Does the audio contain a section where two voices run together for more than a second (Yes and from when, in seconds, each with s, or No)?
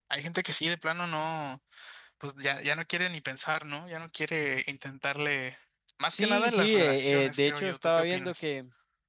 Yes, from 6.1 s